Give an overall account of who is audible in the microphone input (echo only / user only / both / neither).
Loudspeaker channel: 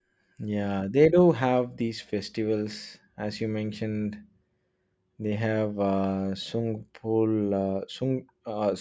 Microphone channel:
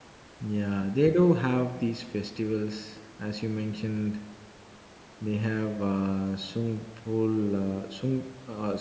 echo only